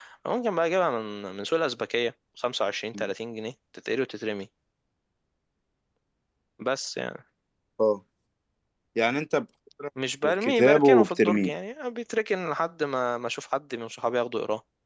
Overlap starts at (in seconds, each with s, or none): 10.2 s